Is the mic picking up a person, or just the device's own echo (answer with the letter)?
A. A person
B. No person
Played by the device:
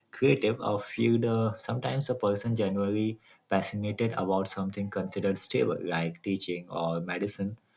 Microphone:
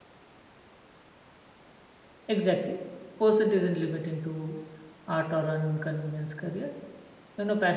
A